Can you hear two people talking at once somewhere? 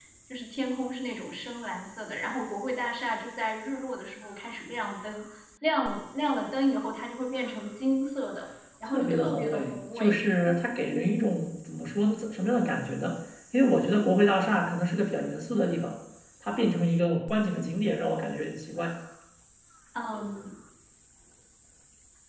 Yes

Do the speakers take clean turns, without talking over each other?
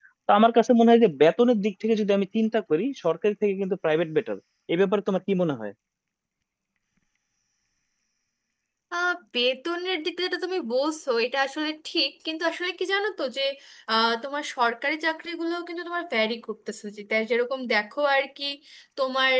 Yes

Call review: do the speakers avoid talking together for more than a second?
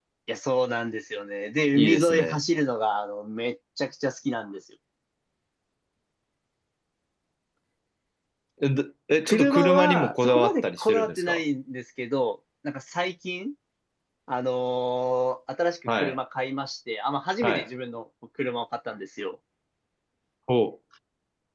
No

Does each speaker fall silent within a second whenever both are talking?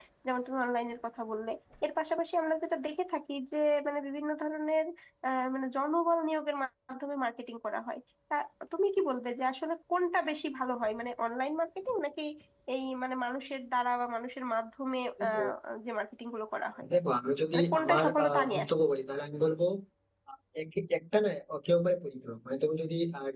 No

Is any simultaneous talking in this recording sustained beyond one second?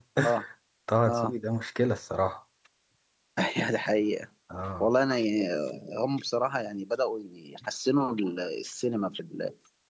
No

